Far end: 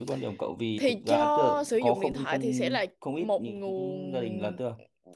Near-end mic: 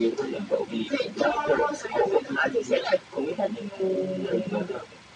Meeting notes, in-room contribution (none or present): none